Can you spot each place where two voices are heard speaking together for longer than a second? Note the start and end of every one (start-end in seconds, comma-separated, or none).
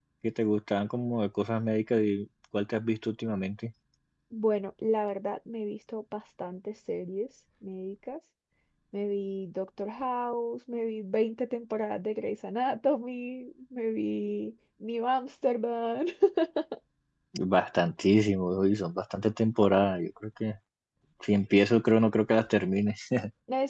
none